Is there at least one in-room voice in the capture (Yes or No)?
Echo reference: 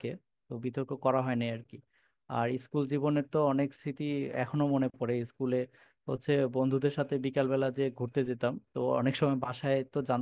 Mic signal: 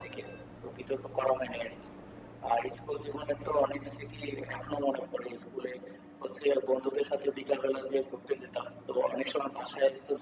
No